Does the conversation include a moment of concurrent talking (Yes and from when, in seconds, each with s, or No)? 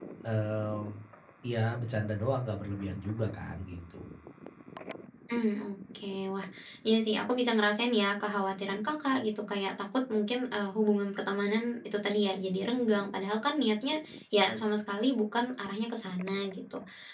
No